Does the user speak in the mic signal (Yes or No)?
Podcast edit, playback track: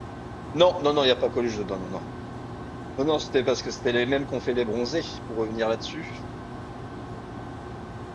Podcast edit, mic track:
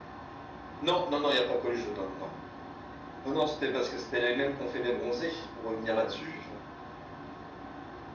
Yes